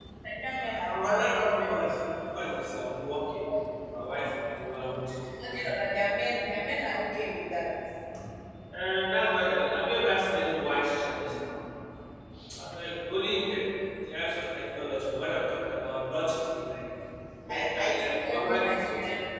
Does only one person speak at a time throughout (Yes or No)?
No